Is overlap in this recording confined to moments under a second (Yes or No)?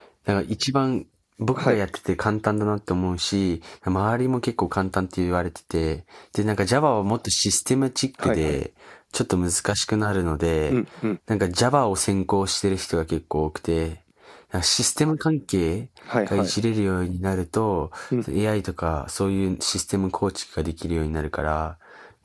Yes